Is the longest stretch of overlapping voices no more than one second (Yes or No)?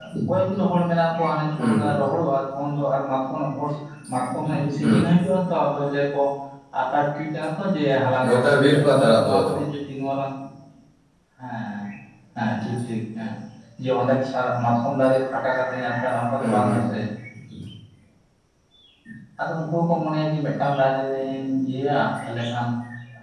No